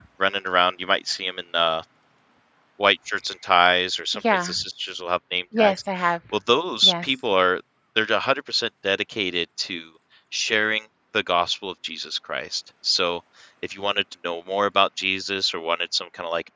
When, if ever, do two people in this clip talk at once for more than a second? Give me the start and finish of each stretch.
none

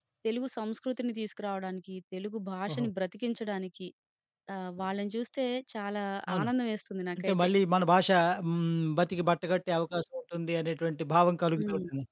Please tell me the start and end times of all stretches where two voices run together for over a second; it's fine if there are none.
none

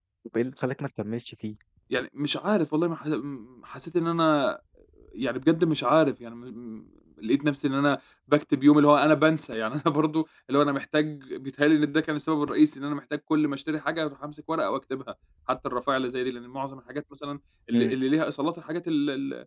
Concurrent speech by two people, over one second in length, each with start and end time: none

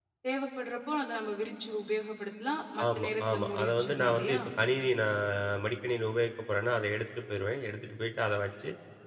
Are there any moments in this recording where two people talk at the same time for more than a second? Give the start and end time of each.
2.8-4.4

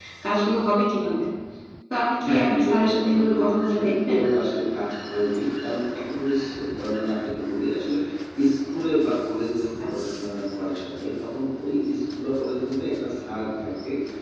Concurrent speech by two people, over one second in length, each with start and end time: 2.3-4.2

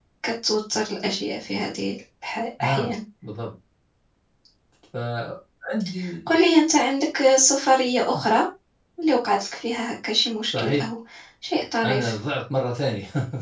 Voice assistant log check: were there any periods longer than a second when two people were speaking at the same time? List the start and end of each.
none

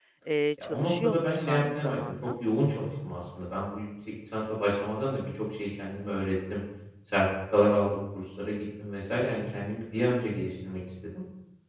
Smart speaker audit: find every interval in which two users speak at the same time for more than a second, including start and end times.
0.6-2.3

